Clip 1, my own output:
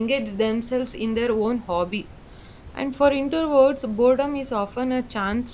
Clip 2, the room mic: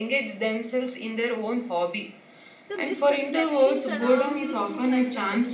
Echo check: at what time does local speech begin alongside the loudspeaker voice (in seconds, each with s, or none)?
2.7 s